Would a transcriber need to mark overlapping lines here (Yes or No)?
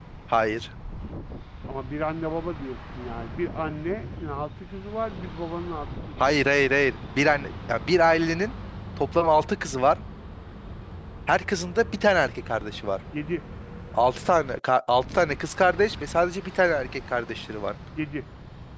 No